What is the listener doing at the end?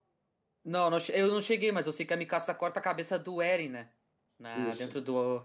listening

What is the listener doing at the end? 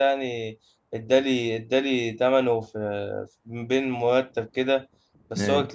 listening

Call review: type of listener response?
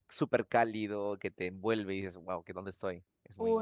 taking over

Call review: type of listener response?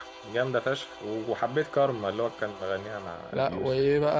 taking over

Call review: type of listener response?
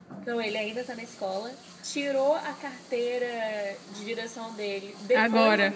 listening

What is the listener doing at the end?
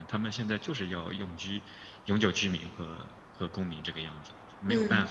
taking over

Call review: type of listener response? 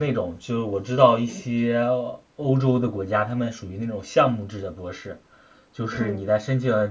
listening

